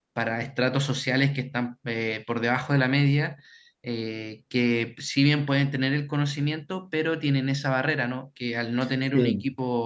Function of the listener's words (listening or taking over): listening